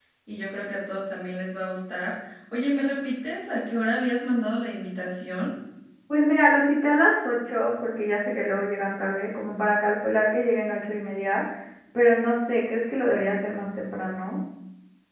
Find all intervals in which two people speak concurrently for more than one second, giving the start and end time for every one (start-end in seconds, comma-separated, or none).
none